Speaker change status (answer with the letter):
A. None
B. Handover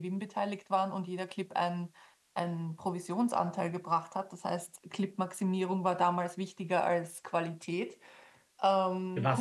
B